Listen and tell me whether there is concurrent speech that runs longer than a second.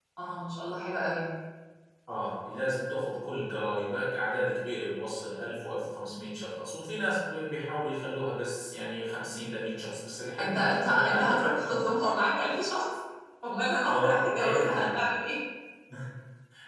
Yes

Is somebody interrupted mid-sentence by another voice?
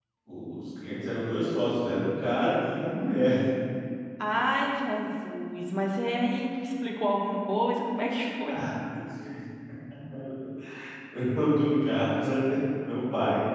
No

